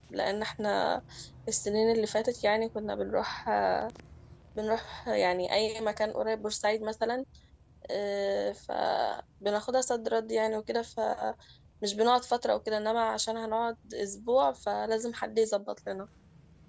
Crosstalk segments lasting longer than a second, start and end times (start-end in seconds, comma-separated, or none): none